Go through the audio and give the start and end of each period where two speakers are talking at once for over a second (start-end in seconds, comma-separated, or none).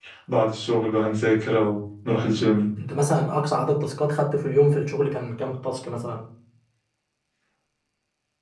none